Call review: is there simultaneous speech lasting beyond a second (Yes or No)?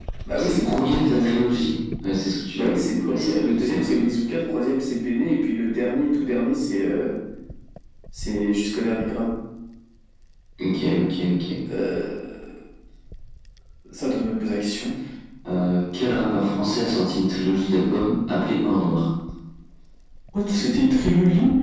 Yes